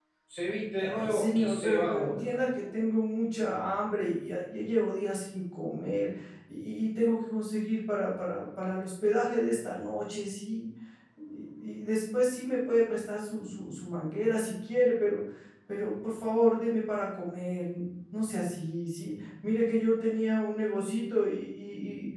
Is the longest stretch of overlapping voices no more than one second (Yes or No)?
No